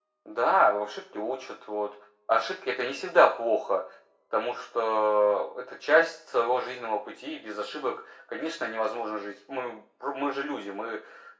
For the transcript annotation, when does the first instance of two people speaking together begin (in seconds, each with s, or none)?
none